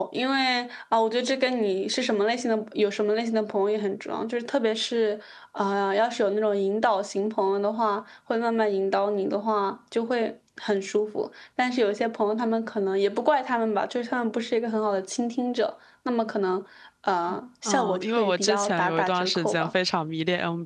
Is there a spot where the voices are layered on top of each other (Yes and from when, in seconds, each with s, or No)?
Yes, from 17.6 s